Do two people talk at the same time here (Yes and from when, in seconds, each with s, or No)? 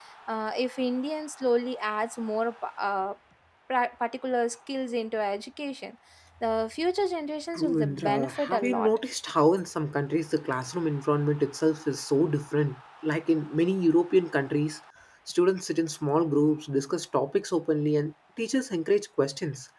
Yes, from 7.5 s